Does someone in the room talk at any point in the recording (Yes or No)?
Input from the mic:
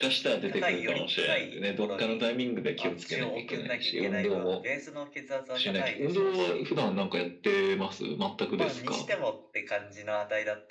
Yes